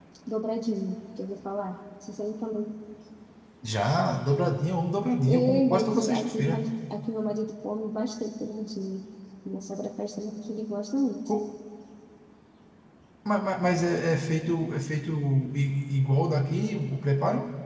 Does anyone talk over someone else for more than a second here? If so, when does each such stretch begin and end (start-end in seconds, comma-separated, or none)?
5.3-6.7